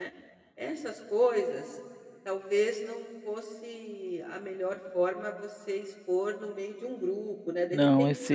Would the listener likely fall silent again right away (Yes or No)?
No